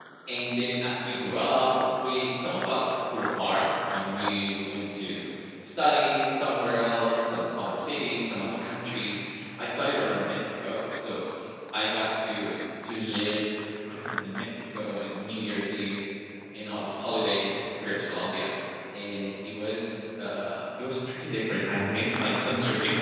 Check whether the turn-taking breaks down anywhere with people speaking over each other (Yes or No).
No